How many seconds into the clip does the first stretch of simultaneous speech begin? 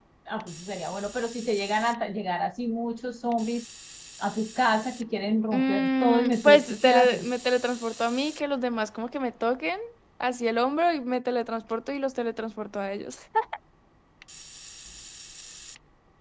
5.5 s

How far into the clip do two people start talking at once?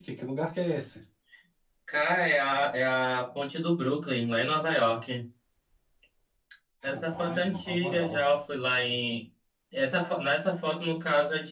6.8 s

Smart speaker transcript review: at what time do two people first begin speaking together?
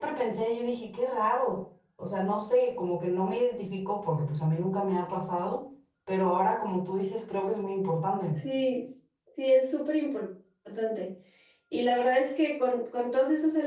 none

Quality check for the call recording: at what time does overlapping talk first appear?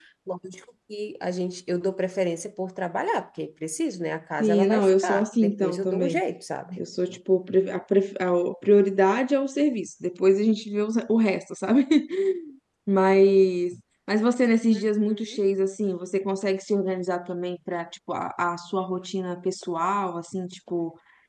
4.4 s

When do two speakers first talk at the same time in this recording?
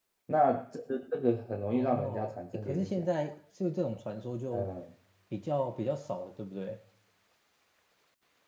1.7 s

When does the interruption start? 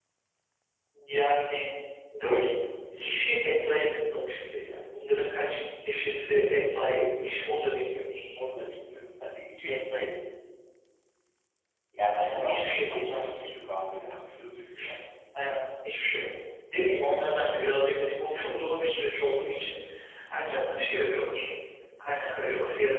12.1 s

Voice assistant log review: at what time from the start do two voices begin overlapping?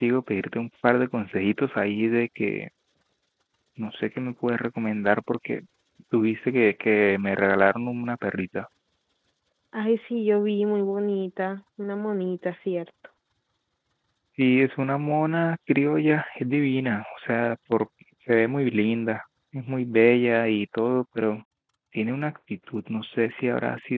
none

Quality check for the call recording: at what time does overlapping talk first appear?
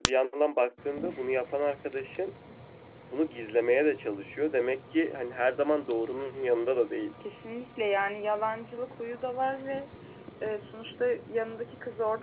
none

